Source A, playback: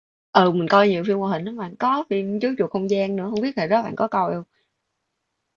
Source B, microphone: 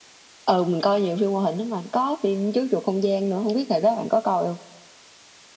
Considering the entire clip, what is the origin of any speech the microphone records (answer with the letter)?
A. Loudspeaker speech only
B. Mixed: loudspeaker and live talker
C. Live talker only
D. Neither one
A